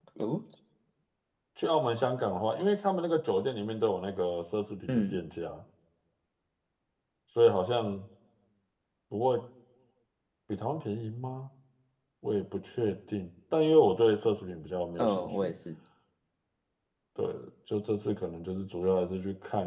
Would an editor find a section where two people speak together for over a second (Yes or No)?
No